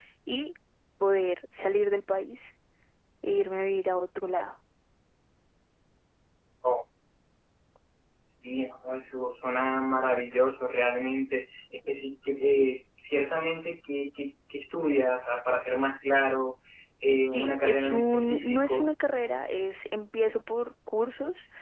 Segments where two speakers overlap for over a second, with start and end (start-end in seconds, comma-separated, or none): 17.2-18.9